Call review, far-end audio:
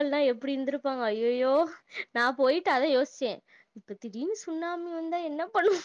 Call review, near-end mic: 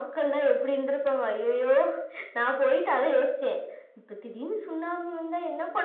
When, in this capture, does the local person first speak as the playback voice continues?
none

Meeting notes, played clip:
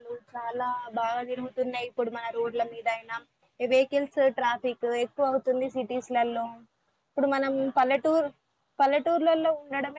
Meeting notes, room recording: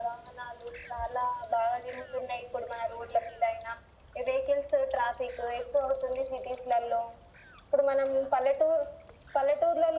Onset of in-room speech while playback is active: none

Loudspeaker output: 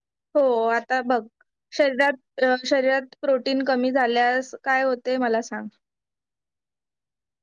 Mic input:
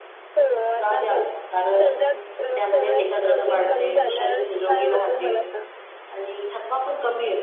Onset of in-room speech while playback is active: 0.8 s

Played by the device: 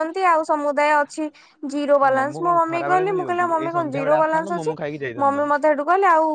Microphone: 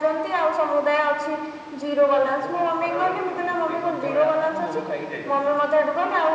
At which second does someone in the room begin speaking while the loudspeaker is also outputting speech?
none

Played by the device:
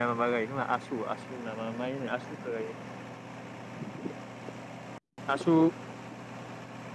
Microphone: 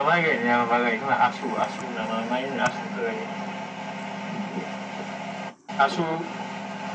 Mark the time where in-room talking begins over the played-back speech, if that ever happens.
none

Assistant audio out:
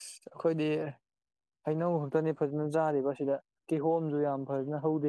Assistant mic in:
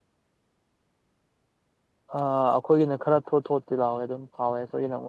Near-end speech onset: 2.2 s

